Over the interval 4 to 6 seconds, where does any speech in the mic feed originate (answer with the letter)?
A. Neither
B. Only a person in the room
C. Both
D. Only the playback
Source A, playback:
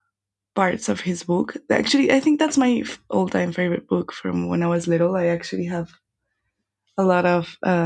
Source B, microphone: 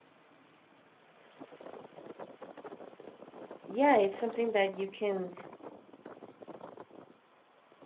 B